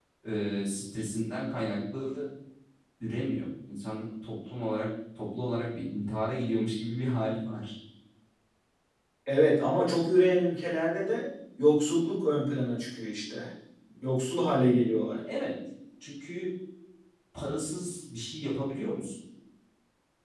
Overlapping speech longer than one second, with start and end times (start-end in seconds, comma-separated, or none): none